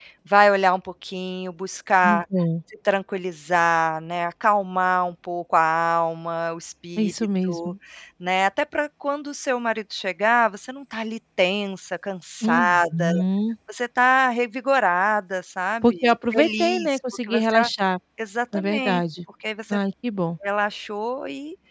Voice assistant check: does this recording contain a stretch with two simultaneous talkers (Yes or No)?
Yes